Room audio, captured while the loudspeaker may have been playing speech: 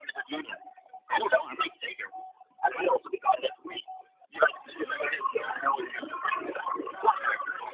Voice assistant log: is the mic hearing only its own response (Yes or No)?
No